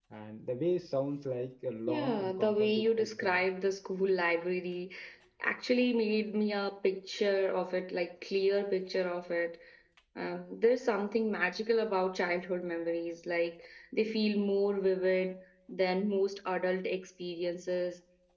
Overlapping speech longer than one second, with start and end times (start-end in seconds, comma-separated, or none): 1.9-3.4